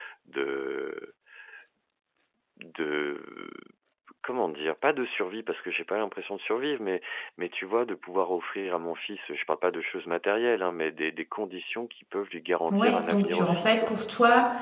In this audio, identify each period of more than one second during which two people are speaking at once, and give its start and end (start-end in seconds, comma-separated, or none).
12.7-13.9